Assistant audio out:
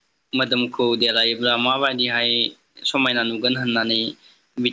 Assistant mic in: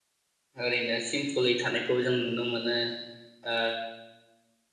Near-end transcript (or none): ओरैनो सिमपोलै थानायखौ जों नुनो मोनो। ओ